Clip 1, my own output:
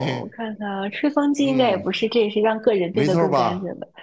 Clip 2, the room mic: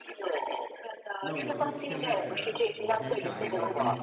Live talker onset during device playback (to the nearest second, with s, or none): 1 s